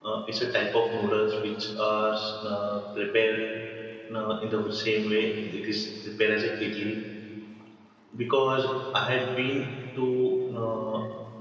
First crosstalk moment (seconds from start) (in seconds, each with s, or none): none